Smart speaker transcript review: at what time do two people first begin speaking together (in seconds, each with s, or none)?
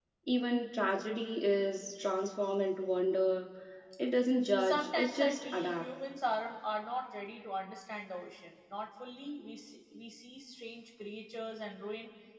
4.6 s